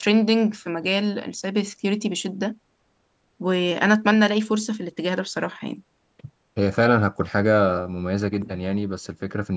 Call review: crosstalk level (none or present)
none